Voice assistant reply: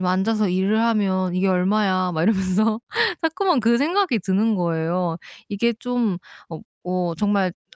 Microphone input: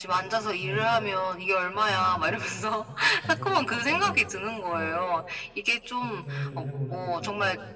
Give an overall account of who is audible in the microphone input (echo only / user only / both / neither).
both